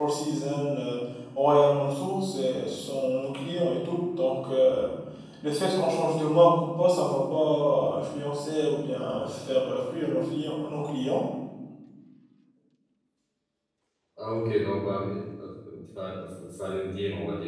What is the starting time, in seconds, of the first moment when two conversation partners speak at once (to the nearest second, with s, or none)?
none